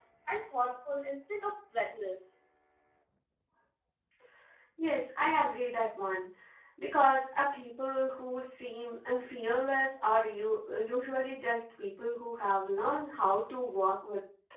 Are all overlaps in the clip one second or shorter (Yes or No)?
Yes